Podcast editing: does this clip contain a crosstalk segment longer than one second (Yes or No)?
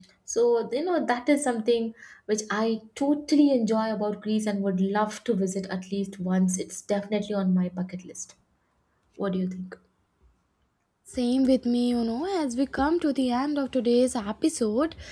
No